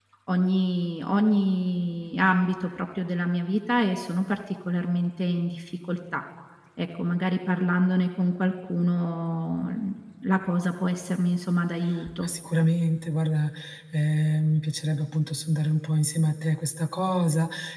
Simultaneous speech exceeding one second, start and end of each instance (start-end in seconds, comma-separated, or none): none